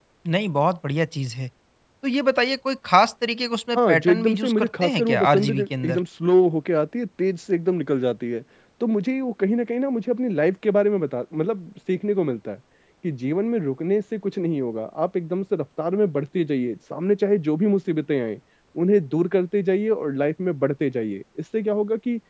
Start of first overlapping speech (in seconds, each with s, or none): 3.8 s